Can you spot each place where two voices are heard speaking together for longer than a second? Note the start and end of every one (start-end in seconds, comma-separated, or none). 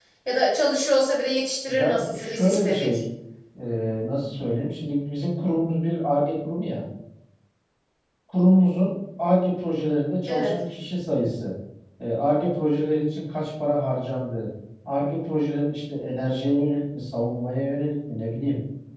1.7-3.0